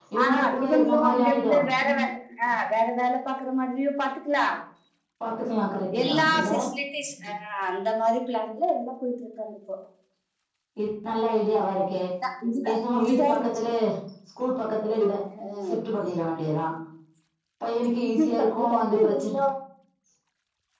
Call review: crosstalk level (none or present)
present